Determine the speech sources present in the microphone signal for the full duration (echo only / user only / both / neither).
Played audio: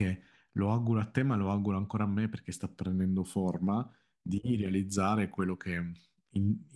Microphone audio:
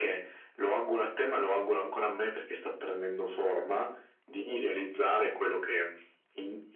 echo only